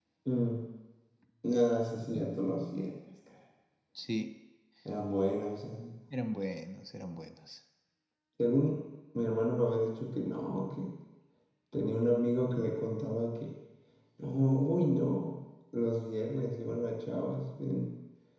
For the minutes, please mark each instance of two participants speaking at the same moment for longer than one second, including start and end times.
none

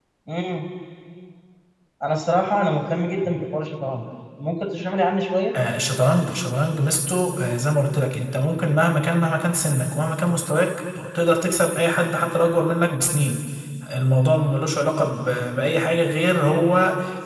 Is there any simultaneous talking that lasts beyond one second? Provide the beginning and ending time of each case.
none

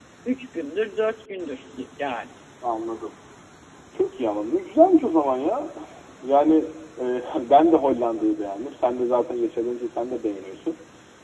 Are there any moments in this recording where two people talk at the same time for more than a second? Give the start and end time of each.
none

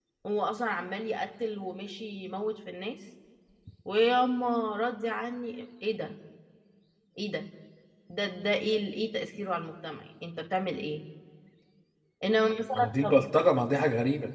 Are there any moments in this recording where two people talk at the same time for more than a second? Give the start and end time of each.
none

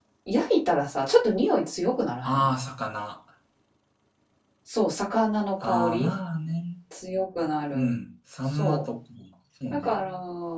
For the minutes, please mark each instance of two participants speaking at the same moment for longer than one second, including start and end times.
none

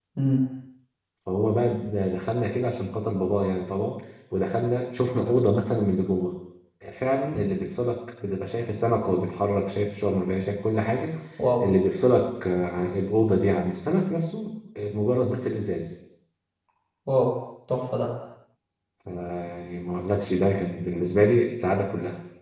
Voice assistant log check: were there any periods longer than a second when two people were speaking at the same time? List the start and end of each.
none

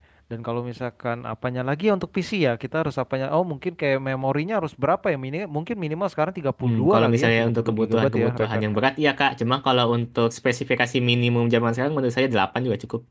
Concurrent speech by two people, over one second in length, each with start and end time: 6.6-8.6

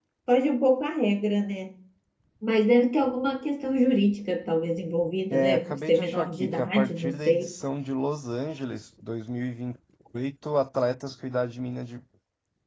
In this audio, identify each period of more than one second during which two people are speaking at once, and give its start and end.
5.3-7.5

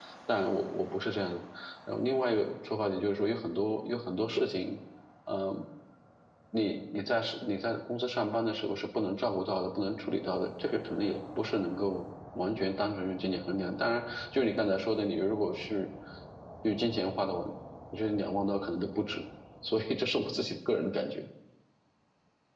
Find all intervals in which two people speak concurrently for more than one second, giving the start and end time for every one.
none

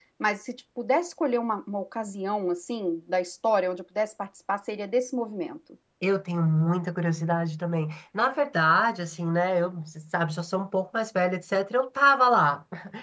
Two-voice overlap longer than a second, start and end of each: none

